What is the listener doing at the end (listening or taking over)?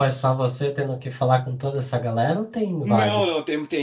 taking over